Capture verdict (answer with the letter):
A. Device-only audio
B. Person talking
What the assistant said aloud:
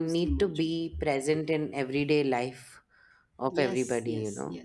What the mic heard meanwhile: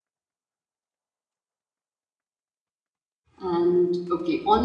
B